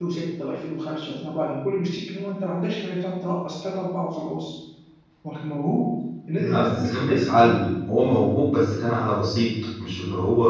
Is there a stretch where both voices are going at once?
Yes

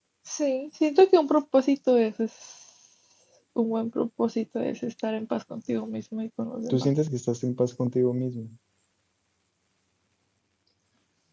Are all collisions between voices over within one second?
Yes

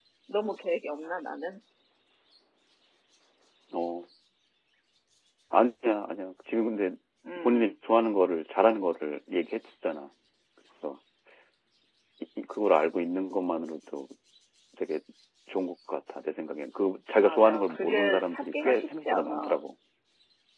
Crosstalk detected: Yes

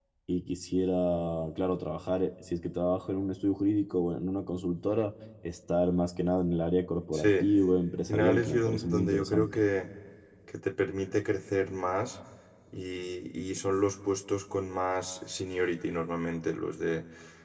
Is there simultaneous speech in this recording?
Yes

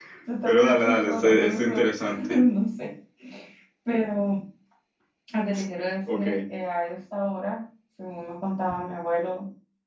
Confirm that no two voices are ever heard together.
No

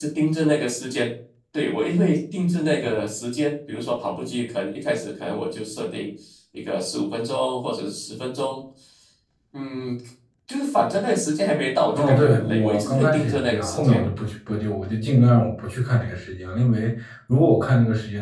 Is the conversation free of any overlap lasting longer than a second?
No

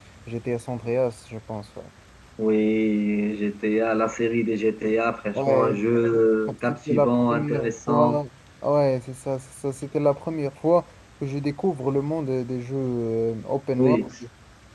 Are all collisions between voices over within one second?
No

